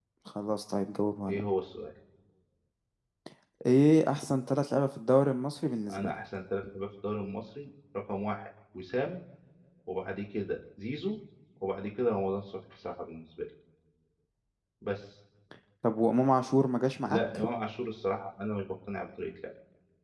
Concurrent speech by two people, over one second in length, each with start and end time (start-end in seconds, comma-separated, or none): none